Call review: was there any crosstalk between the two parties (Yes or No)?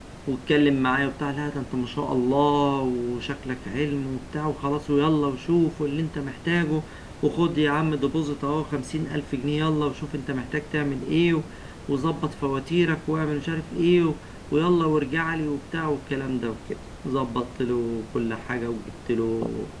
No